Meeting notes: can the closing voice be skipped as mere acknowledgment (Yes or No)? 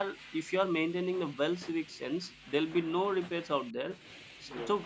Yes